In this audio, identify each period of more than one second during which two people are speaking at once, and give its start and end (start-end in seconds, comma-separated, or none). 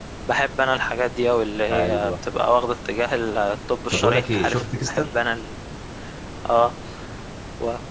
3.9-5.2